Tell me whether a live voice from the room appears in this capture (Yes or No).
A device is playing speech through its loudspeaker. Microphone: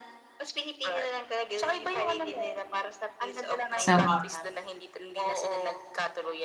Yes